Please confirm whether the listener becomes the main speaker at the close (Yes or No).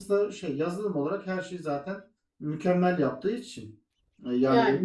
No